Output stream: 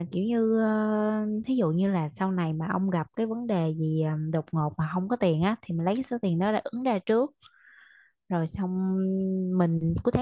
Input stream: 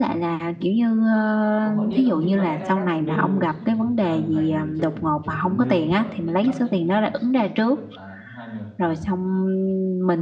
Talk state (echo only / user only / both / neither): both